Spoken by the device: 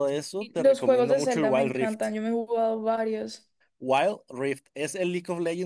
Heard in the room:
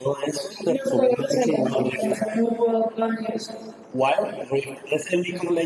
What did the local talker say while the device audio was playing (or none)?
none